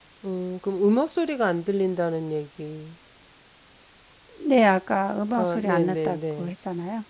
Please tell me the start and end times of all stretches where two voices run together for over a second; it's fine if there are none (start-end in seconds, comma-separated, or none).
5.3-6.5